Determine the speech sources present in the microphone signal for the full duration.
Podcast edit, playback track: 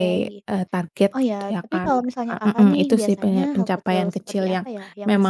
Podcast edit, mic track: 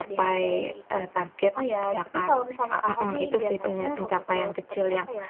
echo only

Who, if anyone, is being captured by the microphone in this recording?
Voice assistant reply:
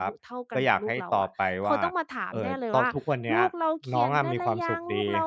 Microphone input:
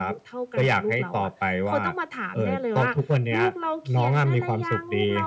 echo only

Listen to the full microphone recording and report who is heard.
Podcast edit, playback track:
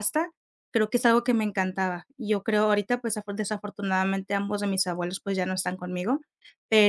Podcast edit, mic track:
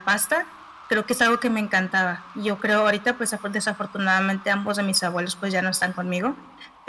echo only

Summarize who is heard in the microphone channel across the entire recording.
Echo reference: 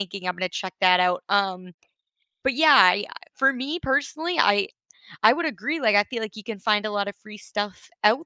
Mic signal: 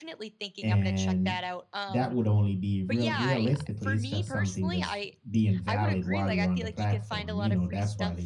both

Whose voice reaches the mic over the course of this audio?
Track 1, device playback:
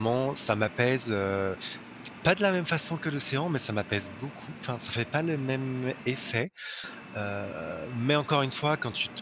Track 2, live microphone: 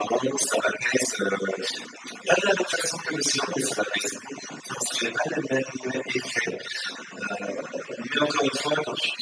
echo only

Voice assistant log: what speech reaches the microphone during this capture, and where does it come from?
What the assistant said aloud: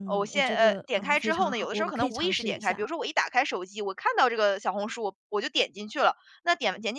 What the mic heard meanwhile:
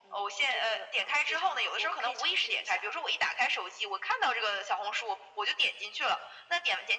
echo only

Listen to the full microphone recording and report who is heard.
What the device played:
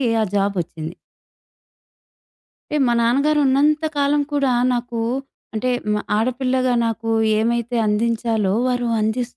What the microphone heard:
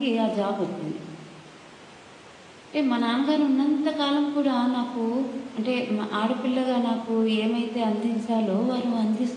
echo only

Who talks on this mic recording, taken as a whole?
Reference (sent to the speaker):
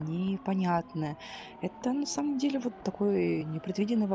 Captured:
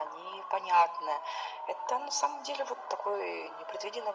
echo only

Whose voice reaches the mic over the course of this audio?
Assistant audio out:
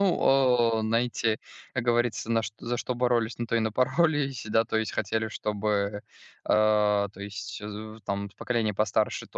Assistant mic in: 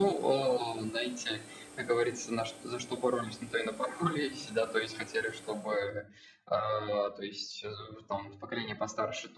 echo only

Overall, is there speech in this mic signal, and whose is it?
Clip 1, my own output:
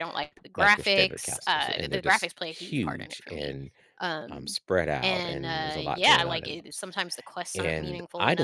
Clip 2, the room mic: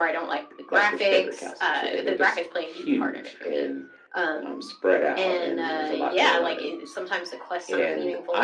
echo only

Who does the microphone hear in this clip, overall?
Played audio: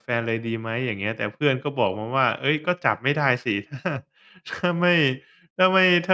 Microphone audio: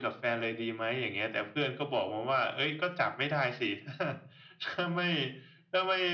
echo only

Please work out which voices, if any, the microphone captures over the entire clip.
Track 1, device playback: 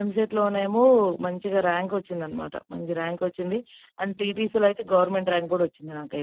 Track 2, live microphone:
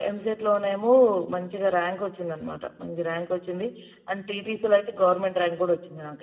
echo only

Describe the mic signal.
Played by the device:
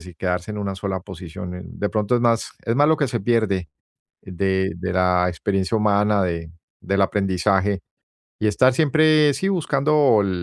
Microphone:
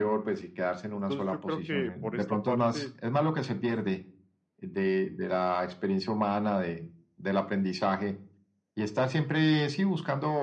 both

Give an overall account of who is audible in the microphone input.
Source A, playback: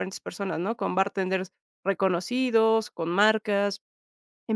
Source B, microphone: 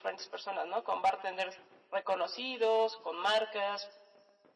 echo only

